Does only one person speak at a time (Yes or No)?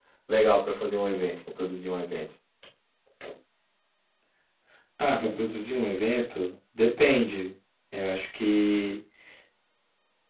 Yes